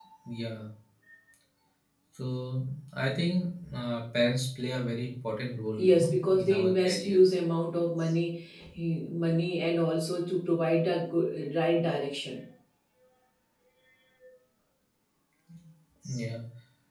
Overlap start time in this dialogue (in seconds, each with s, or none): 5.8 s